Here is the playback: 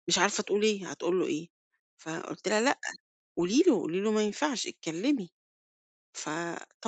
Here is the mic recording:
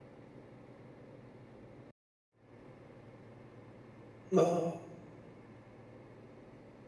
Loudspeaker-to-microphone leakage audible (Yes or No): No